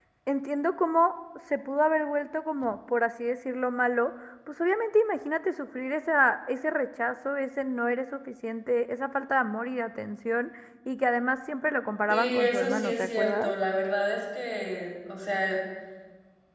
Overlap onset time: 12.1 s

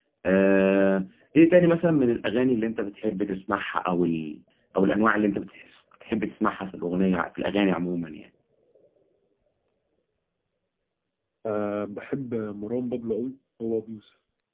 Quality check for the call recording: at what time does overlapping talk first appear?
none

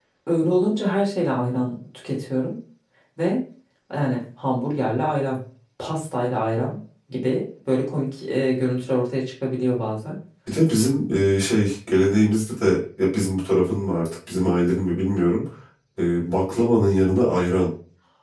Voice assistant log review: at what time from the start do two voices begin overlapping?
none

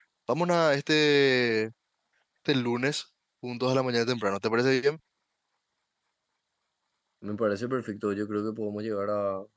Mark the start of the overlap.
none

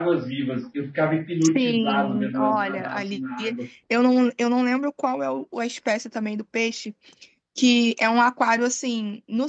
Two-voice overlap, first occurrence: 1.5 s

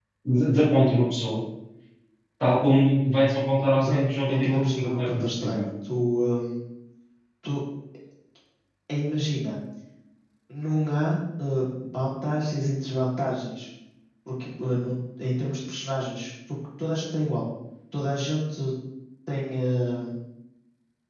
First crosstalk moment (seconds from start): 3.8 s

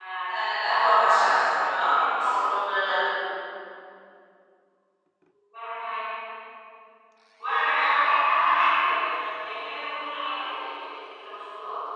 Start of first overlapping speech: 0.6 s

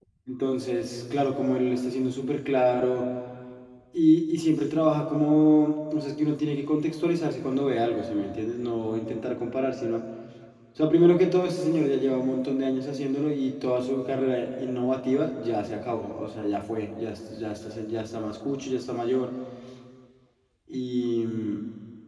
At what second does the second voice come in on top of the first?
none

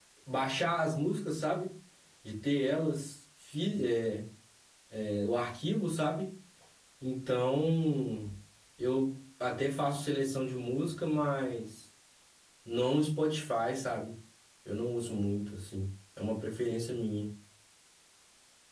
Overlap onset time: none

